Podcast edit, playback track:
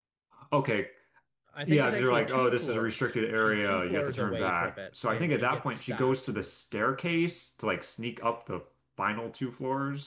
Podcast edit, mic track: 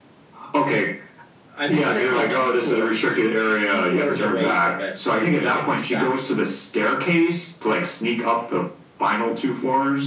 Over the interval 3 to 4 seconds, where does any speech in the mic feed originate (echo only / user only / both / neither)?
echo only